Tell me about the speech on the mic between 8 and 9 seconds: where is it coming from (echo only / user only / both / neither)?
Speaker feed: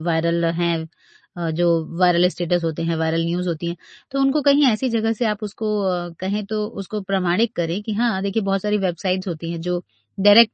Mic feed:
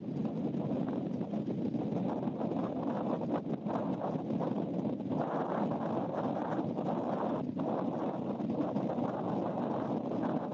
neither